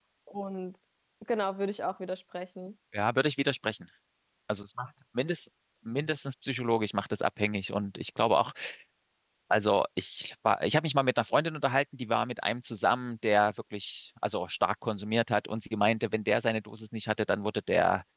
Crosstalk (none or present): none